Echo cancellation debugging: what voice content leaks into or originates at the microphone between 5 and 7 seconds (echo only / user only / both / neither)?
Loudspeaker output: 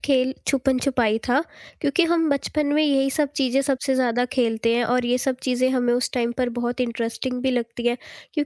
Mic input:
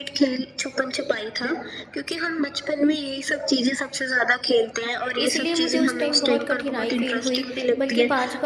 both